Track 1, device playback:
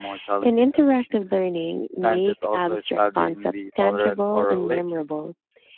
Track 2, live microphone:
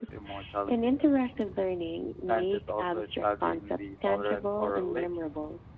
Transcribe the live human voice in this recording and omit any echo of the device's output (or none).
none